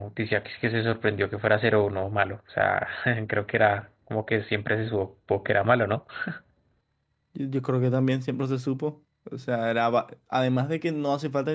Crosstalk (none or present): none